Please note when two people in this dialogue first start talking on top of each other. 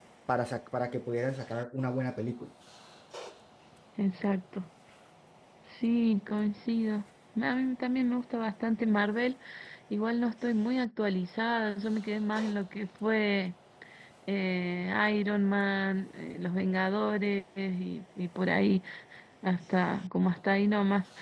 none

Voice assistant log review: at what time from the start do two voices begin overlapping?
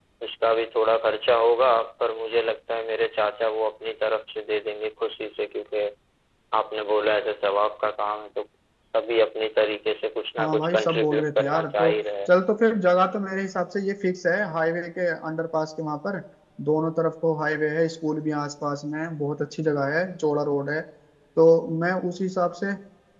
10.4 s

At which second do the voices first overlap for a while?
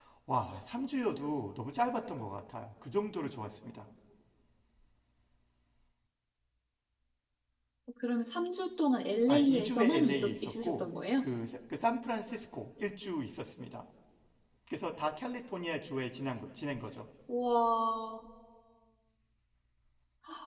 9.2 s

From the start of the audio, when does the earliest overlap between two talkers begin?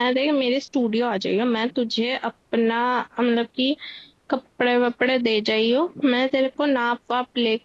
none

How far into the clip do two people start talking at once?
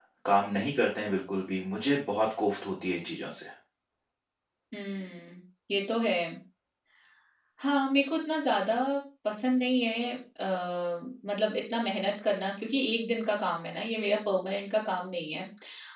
none

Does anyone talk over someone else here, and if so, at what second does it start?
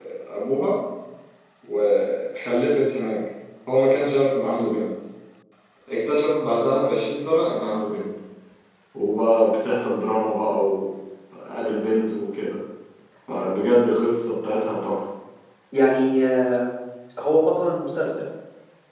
none

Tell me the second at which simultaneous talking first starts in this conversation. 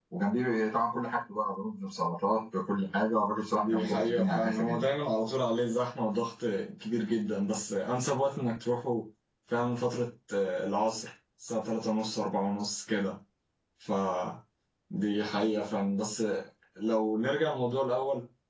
3.5 s

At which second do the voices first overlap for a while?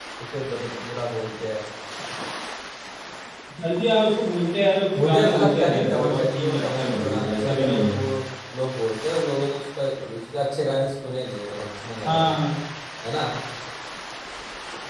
5.0 s

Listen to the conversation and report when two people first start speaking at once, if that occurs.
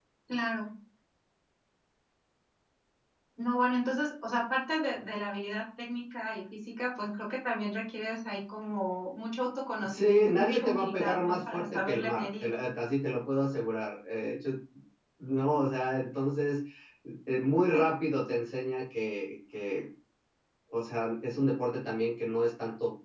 9.8 s

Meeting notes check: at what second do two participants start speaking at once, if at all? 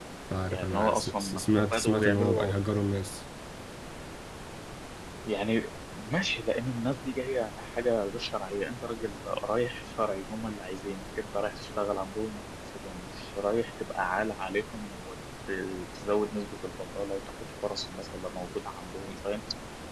0.5 s

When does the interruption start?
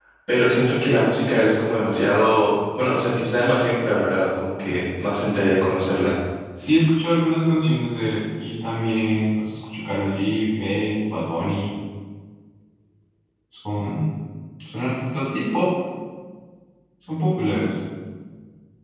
none

